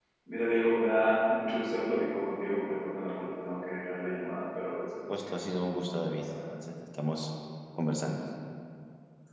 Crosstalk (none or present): present